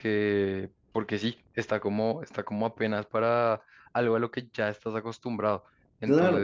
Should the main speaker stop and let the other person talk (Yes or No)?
Yes